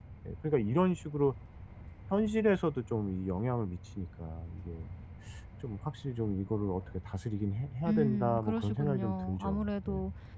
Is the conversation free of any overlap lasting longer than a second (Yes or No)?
No